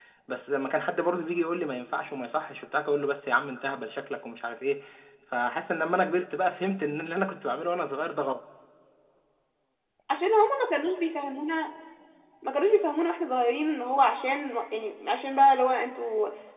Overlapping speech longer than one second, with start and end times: none

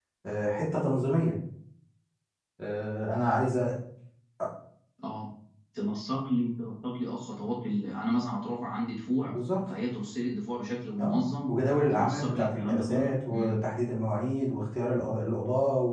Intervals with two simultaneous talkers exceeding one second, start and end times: 11.9-13.5

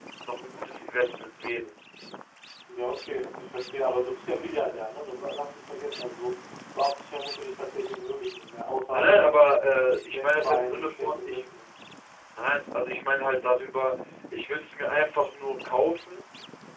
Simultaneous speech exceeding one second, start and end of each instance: 10.1-11.4

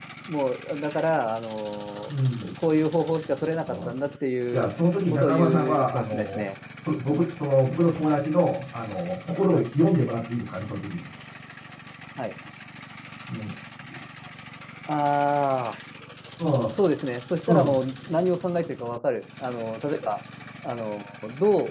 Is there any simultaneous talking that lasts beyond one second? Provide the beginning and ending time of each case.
5.1-6.4

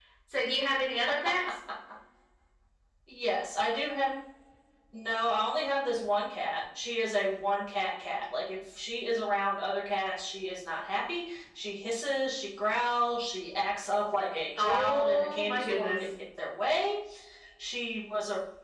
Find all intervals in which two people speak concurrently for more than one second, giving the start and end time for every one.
14.6-16.0

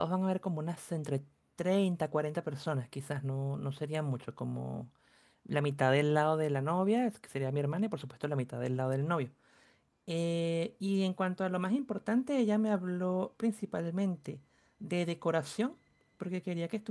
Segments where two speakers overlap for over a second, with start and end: none

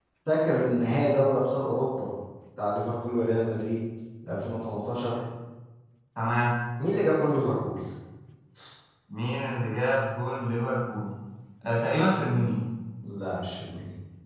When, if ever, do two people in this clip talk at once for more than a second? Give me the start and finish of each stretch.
none

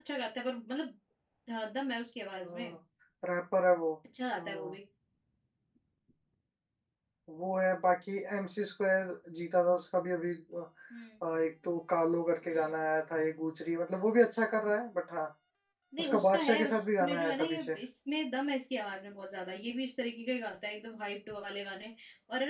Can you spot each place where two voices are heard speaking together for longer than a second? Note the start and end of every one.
16.0-17.8

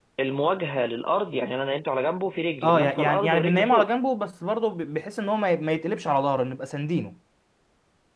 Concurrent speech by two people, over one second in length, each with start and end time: 2.6-3.9

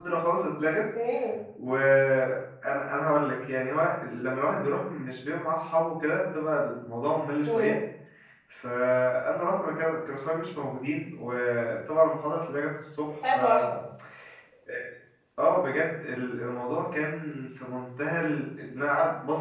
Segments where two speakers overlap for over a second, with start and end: none

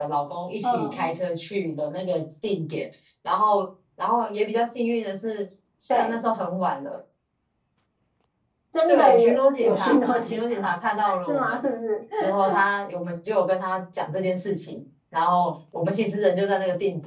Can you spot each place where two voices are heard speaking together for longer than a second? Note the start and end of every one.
8.9-10.7

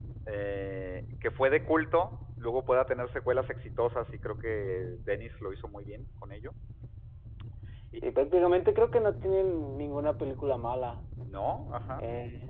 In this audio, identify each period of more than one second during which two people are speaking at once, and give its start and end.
none

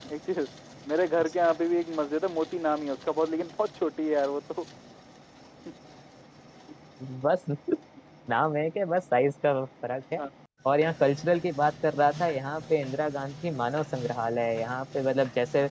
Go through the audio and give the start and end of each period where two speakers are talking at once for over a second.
none

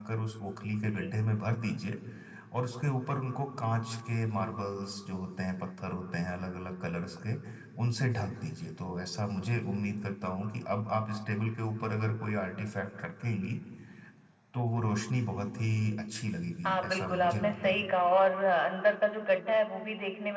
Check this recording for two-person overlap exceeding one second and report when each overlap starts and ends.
16.6-17.9

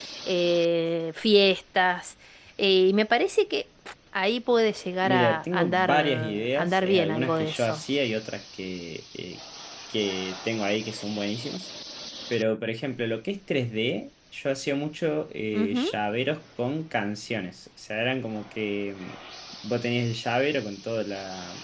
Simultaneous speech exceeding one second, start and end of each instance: 5.0-7.8

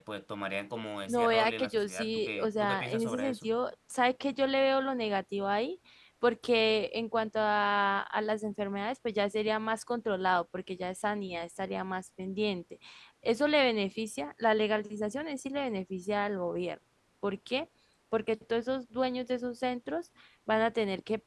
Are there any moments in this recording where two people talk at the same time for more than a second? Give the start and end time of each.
1.1-3.5

